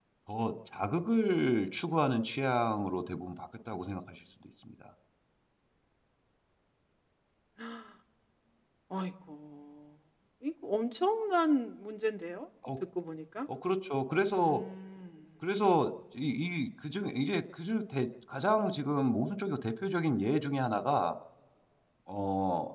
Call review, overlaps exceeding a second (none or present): none